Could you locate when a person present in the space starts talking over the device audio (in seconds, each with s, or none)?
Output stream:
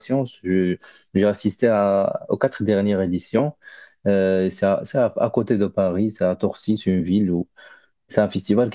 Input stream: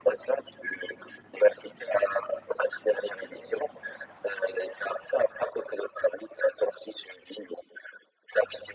none